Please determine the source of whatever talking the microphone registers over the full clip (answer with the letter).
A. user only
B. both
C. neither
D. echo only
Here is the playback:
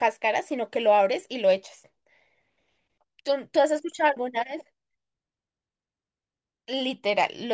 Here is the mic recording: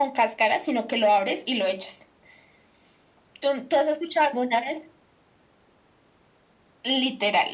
D